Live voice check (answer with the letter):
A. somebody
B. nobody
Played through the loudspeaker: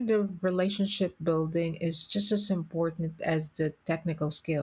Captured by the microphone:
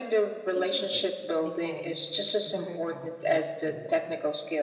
A